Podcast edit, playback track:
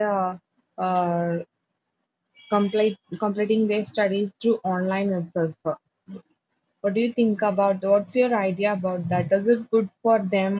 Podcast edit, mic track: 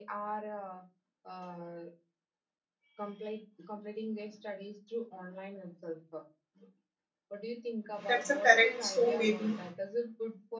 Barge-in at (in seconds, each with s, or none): 8.1 s